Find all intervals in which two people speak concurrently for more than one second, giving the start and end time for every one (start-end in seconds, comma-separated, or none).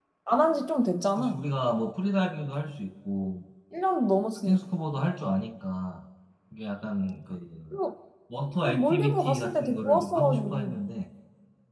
8.6-10.8